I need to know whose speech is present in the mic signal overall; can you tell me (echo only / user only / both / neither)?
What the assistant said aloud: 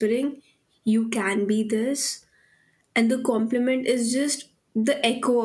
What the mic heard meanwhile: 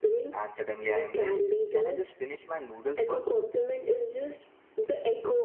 both